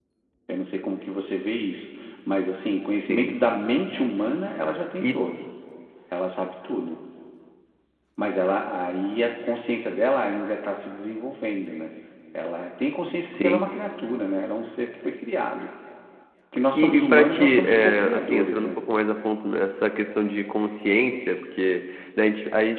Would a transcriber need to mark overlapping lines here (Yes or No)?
Yes